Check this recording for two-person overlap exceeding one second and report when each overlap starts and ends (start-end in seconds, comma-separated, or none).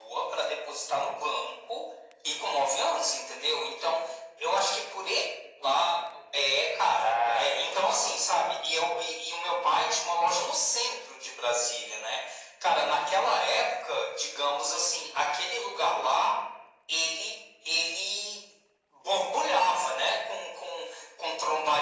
7.0-8.5